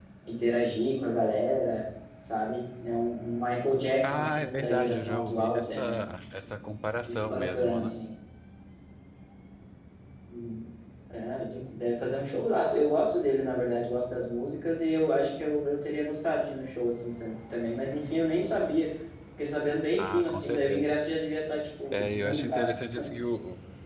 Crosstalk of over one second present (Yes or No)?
Yes